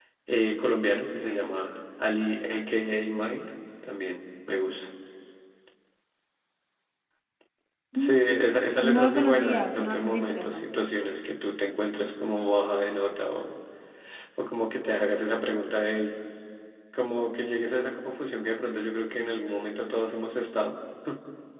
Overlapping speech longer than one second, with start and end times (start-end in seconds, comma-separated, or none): 8.8-10.7